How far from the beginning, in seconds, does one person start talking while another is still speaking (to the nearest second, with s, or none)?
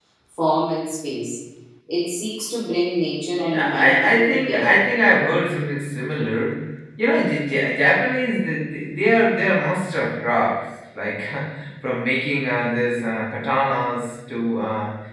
3 s